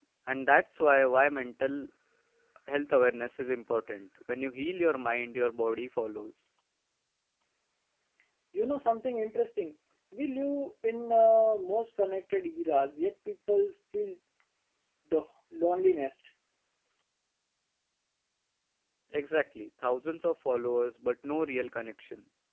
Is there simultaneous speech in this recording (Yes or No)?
No